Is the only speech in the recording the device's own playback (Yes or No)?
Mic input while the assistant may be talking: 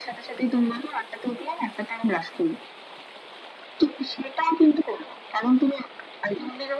Yes